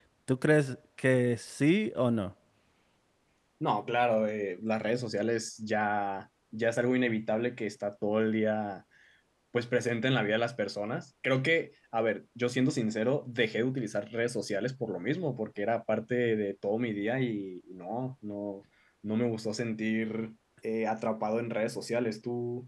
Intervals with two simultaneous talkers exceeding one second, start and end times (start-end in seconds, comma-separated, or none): none